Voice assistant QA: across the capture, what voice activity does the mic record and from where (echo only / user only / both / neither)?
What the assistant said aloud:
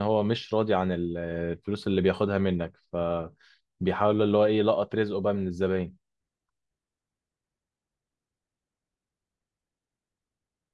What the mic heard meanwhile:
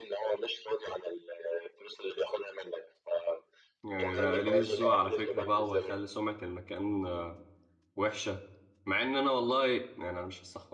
both